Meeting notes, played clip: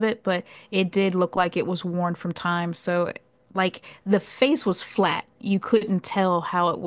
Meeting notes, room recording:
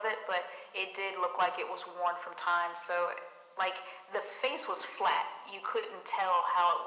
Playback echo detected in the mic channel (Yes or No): Yes